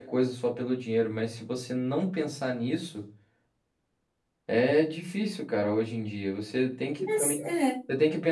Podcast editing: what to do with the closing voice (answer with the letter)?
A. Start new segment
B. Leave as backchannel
B